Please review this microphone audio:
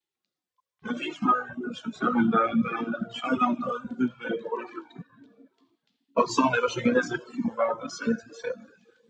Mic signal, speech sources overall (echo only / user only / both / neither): echo only